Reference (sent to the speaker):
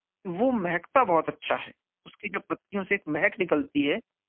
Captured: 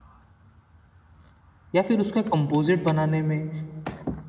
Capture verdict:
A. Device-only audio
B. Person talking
B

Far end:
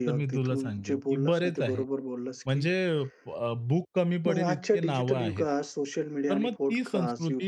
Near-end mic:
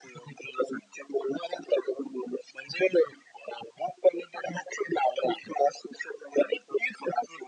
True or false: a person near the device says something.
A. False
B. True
A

